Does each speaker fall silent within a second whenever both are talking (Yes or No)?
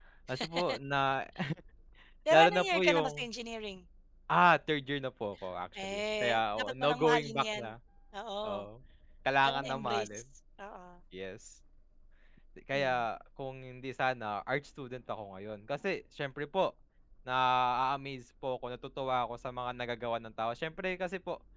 No